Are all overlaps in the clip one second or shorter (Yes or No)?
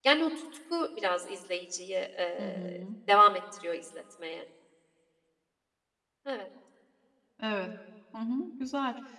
Yes